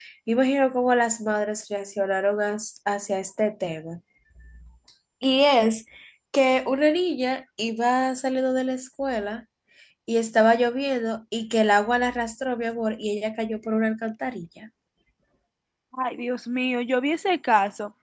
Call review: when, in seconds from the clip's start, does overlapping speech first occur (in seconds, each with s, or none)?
none